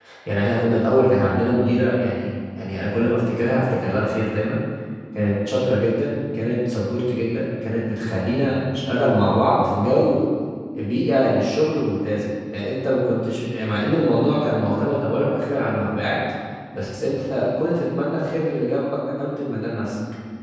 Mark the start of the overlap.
none

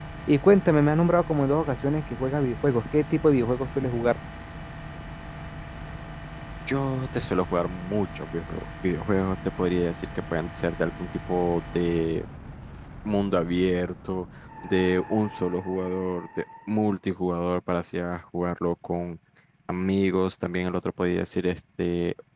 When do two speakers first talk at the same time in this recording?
none

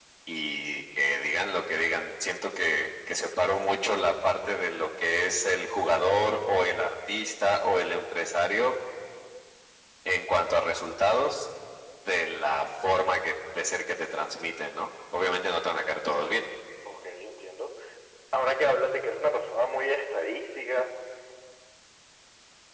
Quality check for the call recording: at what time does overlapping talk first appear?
none

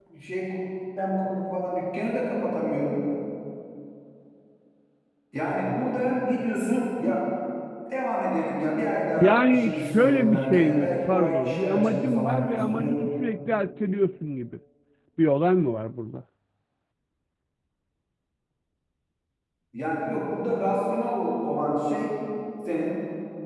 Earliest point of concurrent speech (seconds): 9 s

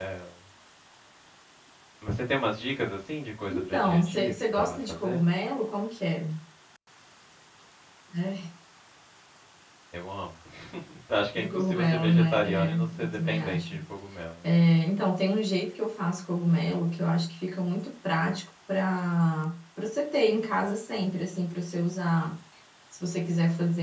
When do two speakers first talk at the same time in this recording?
3 s

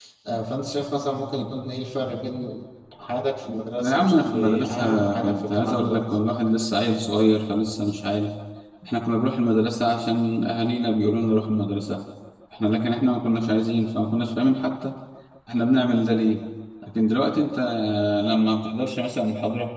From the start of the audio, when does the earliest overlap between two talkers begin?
4 s

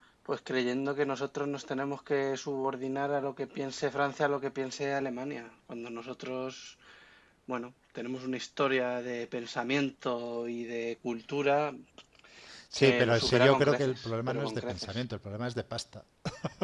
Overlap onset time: 13 s

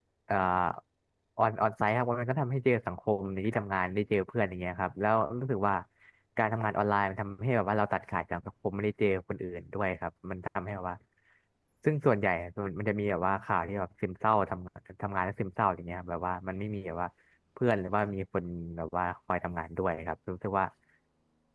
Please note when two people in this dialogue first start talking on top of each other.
none

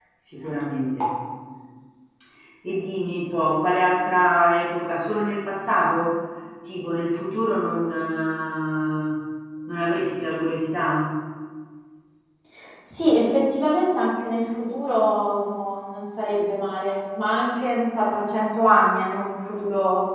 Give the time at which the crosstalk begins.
none

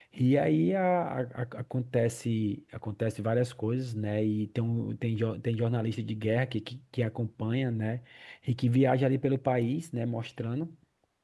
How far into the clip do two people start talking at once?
none

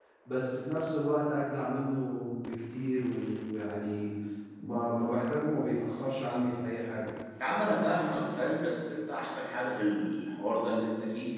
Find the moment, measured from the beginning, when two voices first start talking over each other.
none

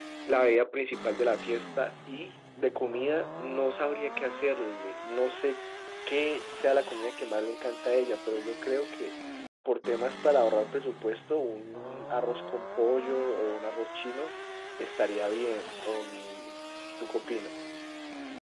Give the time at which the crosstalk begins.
none

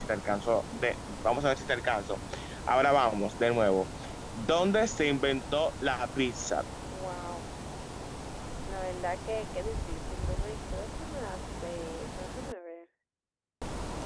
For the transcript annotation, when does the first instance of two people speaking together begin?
none

